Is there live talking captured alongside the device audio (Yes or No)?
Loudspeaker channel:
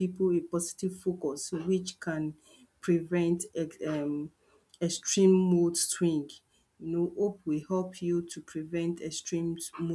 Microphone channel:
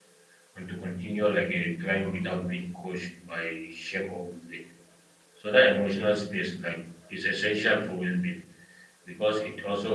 Yes